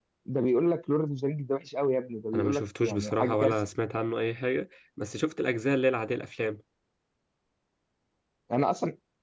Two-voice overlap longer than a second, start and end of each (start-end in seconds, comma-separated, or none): 2.3-3.6